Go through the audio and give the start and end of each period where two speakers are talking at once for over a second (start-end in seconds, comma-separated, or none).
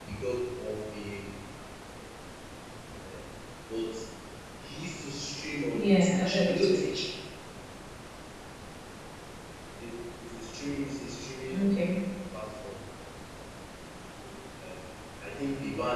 5.7-7.1